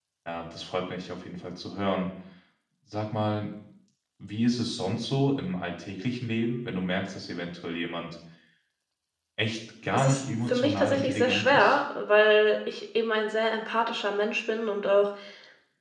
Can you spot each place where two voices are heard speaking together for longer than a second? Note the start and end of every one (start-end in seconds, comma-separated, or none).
9.9-11.8